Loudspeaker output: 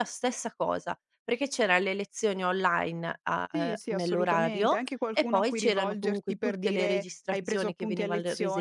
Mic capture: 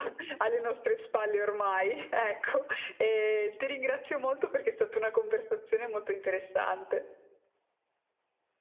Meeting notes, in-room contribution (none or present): present